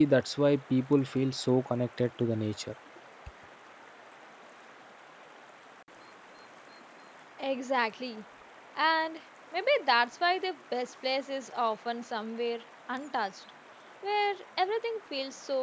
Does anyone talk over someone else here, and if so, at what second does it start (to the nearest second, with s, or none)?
none